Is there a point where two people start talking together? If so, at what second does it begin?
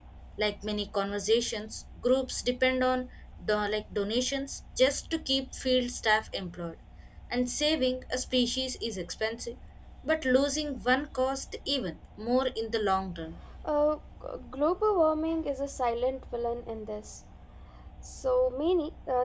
none

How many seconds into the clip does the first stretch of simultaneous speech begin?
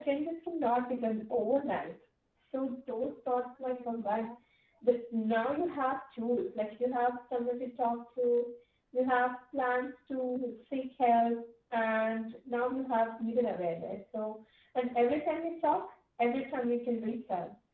none

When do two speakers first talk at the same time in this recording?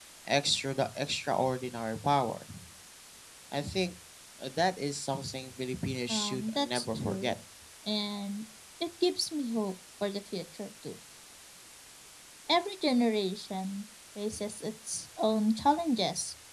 6.1 s

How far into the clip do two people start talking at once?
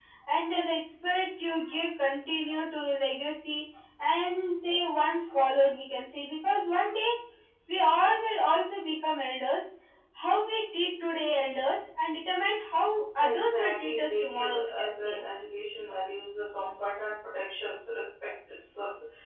13.2 s

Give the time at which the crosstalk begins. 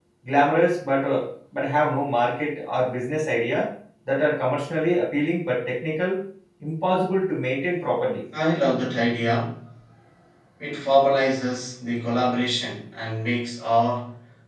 none

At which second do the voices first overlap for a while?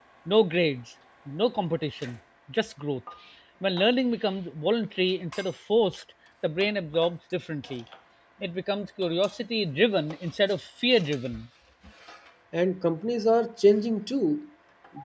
none

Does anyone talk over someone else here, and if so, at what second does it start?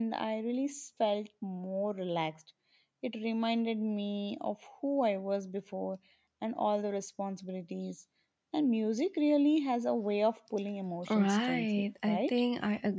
11.1 s

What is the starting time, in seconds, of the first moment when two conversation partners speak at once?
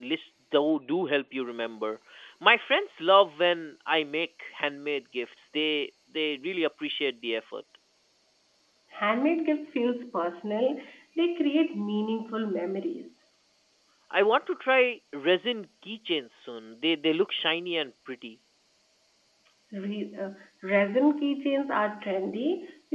none

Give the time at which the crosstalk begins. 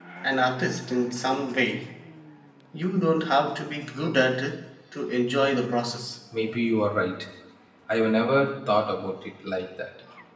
none

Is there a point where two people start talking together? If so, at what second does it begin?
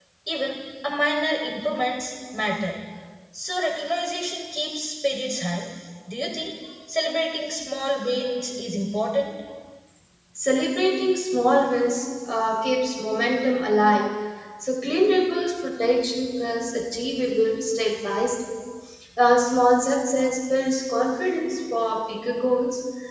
none

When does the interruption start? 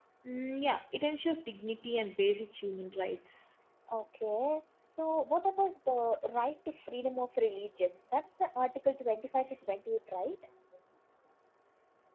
none

